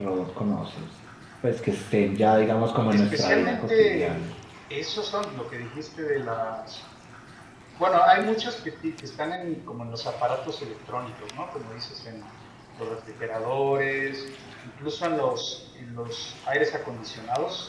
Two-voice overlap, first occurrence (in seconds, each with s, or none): 2.9 s